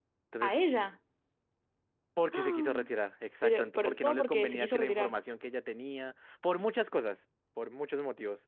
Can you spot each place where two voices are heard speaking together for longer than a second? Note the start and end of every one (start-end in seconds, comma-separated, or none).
3.4-5.1